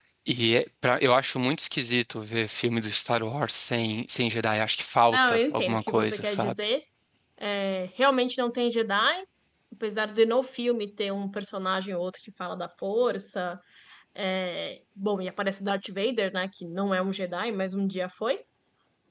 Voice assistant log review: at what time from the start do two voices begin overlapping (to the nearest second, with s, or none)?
5 s